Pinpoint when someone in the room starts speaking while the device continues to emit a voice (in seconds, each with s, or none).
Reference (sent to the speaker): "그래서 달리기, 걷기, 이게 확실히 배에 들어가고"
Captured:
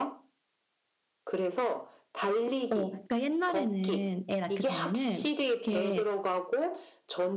2.7 s